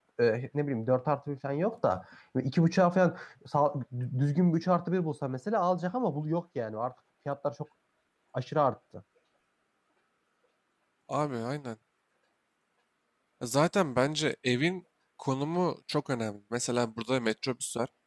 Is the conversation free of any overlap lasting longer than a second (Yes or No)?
Yes